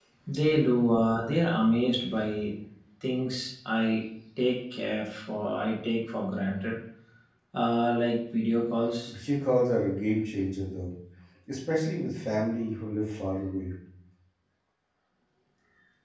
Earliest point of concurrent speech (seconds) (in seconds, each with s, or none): none